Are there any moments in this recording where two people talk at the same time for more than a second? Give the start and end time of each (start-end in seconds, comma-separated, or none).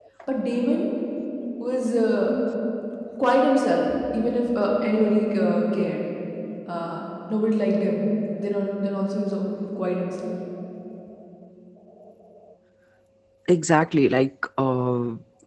none